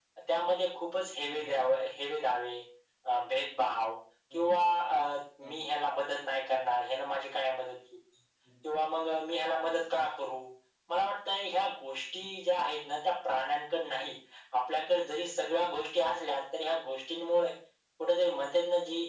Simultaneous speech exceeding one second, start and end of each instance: none

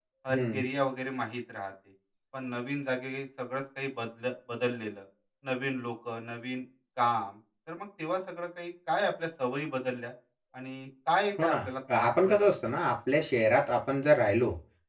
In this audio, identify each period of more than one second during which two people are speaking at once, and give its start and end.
11.4-12.8

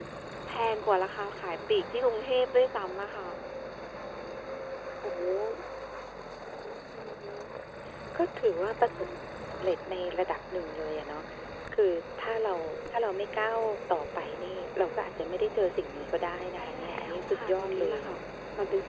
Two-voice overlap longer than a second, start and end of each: 16.6-18.1

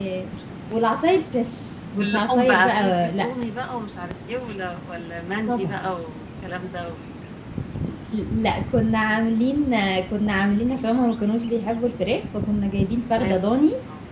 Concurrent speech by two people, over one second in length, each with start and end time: 2.0-3.3

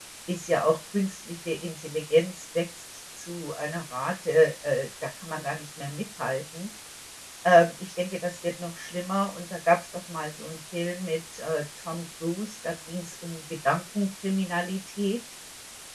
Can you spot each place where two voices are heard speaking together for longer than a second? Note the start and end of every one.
none

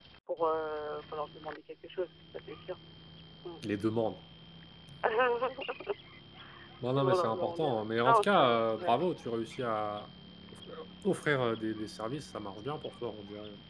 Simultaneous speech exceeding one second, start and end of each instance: 6.9-8.9

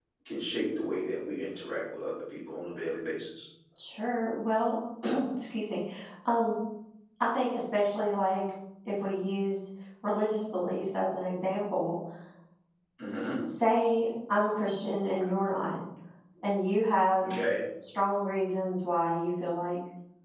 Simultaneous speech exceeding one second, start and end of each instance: none

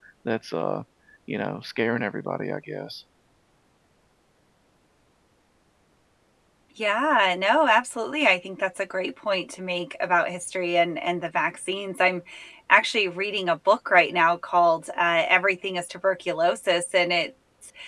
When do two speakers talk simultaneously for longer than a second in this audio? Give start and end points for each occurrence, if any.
none

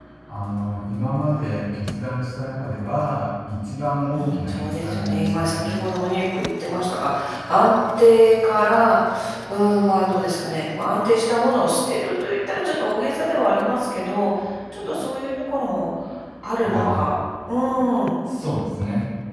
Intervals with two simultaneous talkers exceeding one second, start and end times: 4.1-5.8

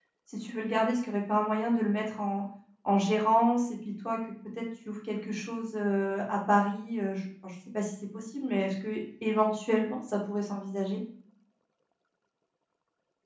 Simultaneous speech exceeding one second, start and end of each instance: none

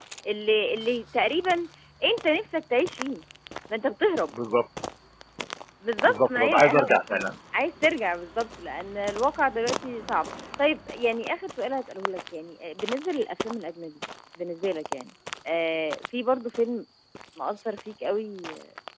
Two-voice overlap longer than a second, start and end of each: 6.0-7.3

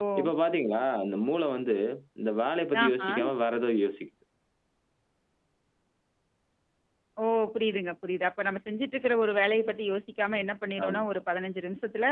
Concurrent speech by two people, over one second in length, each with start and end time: none

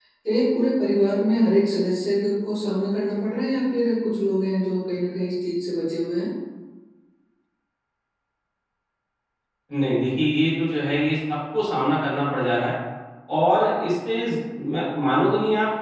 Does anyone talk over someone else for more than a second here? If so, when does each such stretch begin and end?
none

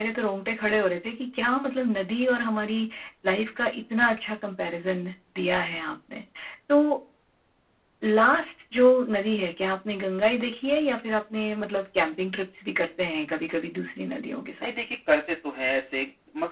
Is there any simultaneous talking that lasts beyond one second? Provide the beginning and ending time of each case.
none

